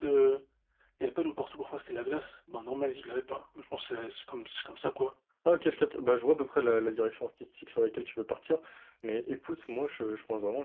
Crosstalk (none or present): none